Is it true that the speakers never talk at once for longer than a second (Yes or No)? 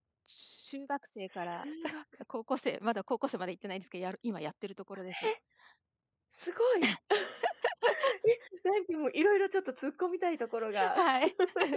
Yes